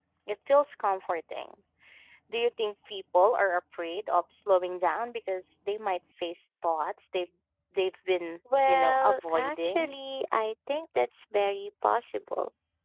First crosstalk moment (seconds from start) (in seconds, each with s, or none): 8.4 s